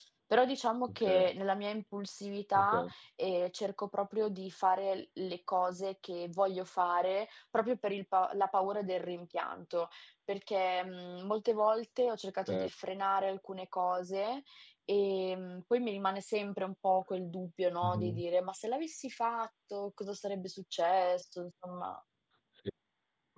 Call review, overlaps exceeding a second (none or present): none